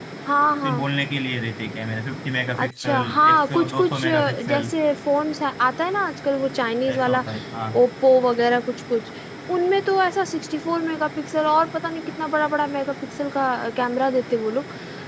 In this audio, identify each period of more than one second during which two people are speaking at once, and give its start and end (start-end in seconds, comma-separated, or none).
2.6-4.7